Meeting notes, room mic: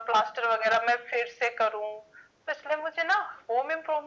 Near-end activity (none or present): none